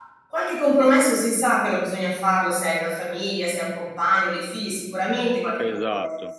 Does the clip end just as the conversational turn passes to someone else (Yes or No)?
No